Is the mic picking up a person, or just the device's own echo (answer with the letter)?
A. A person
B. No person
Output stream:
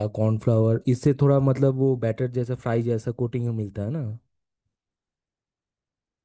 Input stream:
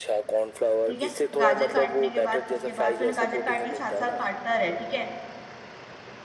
A